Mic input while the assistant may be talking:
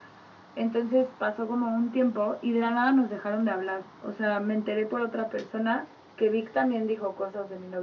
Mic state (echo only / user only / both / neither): echo only